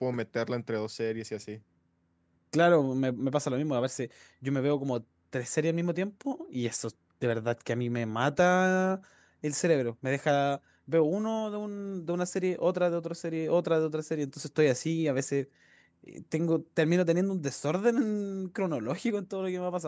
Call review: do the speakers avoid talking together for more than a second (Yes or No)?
Yes